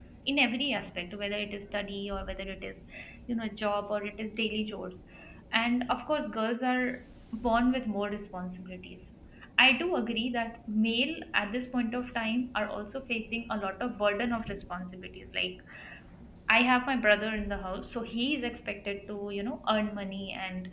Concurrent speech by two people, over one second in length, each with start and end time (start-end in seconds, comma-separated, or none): none